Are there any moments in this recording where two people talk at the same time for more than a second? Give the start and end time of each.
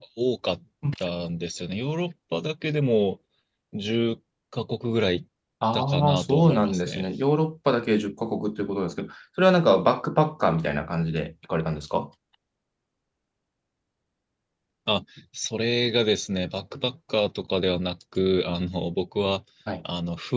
5.7-7.1

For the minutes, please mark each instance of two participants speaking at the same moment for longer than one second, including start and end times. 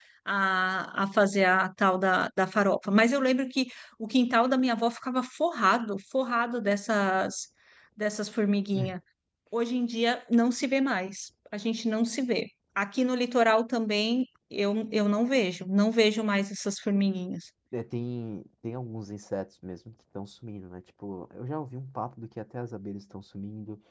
none

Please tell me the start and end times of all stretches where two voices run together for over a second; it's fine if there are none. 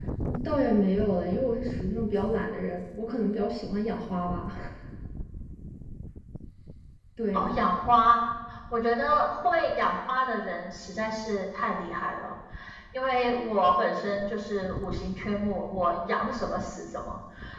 none

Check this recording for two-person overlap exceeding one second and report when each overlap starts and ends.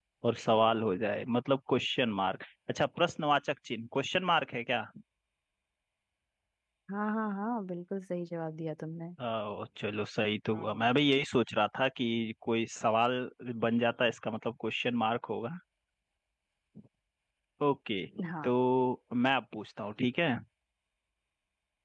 none

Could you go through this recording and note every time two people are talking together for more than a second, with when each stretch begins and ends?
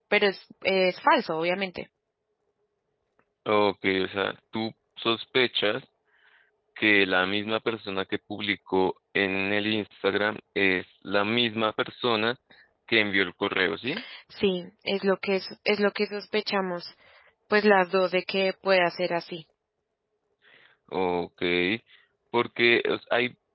none

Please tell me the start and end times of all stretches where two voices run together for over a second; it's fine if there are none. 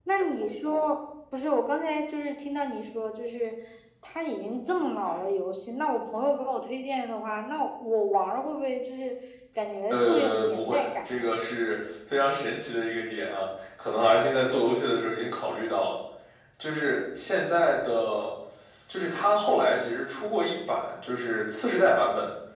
9.9-11.3

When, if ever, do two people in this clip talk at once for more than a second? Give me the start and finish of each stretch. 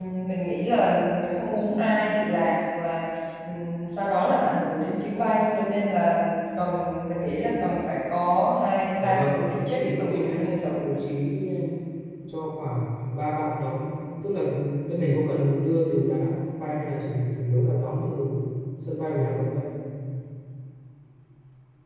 9.0-10.8

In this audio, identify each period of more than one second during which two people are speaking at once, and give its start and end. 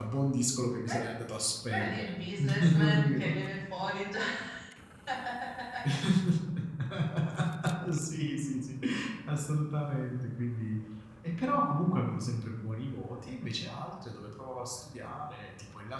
1.7-3.4

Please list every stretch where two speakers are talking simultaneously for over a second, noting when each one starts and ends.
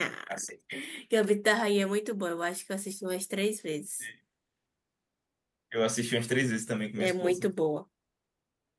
none

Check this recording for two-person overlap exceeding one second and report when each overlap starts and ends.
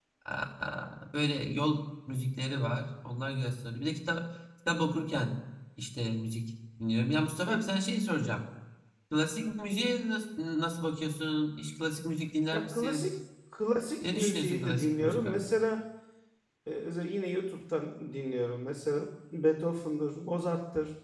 14.1-15.6

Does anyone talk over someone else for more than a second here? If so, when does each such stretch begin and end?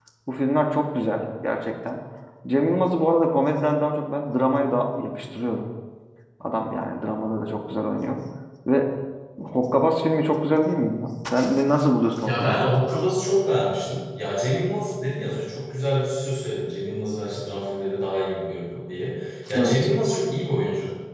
none

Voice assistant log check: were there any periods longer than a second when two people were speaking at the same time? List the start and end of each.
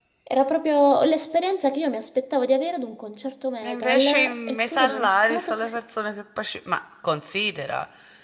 3.6-5.8

